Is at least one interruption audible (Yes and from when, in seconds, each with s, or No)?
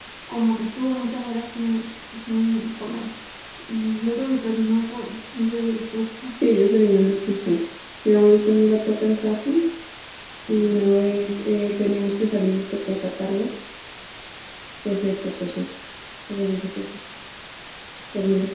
No